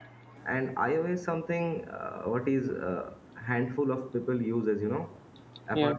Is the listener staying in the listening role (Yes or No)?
Yes